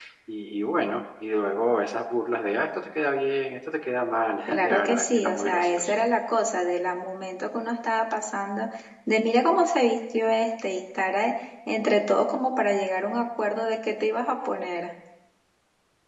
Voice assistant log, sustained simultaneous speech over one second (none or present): present